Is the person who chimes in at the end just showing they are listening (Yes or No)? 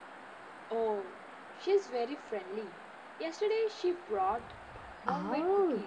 No